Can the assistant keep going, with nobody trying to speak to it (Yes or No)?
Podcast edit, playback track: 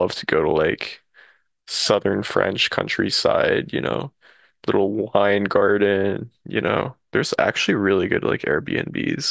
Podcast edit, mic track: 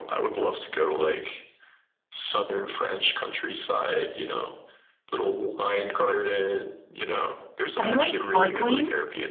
No